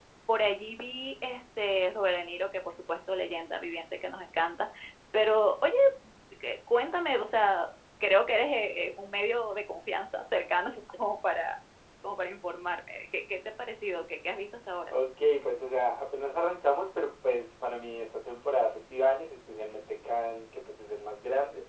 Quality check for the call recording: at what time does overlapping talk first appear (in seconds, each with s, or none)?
none